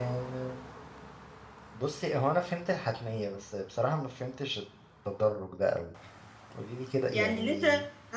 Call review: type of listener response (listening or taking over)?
taking over